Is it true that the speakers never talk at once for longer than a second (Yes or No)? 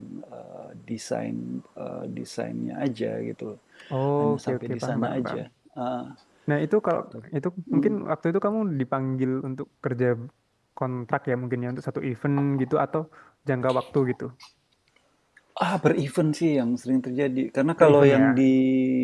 No